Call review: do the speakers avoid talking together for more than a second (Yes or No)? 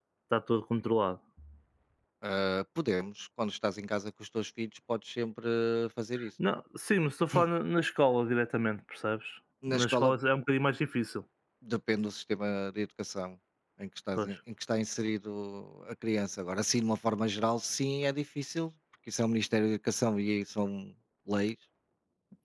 Yes